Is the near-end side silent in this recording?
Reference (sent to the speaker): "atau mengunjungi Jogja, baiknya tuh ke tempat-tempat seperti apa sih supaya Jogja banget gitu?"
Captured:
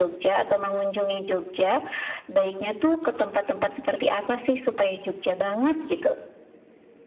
Yes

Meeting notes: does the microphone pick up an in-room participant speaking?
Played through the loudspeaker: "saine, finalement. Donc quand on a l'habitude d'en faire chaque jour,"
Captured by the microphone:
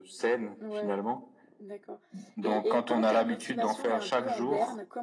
Yes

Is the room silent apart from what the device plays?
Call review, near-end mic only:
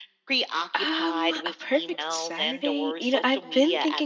No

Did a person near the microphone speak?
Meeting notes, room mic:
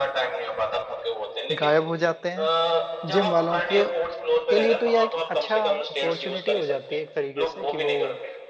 Yes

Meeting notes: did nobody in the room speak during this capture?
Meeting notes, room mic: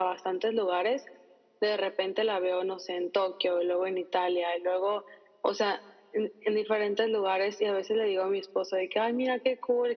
Yes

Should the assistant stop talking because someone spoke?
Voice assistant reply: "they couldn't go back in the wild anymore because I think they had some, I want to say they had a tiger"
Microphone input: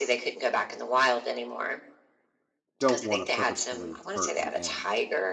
Yes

